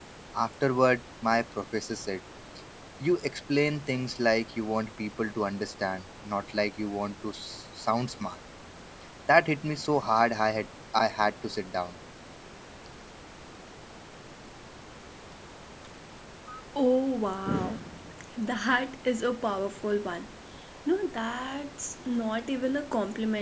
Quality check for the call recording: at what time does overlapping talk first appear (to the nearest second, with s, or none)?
none